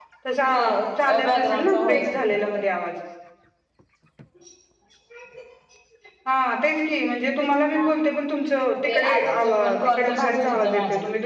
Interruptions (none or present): present